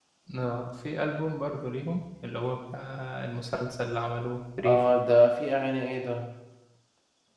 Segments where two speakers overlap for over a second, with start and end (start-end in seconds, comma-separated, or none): none